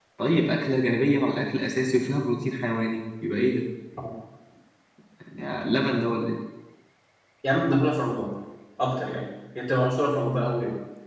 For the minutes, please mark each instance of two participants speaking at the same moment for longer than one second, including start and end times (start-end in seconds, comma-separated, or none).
none